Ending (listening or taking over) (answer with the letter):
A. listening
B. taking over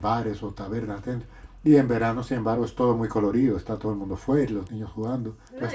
B